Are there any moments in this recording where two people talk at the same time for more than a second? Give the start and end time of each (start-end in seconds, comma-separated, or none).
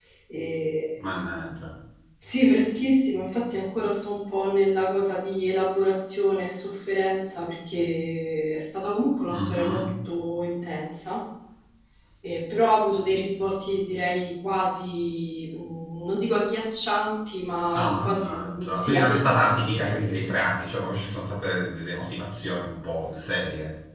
17.7-20.3